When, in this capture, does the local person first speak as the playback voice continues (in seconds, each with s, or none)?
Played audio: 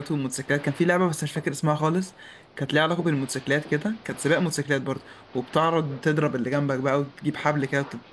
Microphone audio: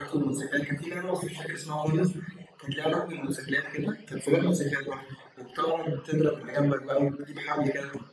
none